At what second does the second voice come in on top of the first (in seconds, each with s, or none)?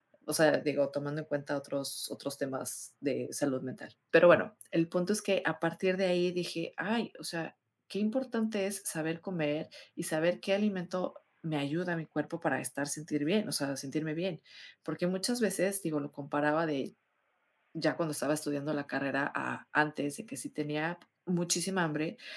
none